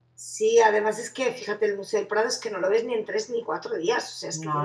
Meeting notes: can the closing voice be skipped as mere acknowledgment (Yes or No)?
Yes